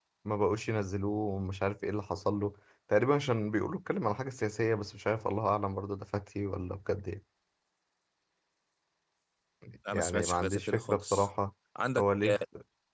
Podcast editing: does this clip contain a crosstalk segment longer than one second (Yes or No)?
Yes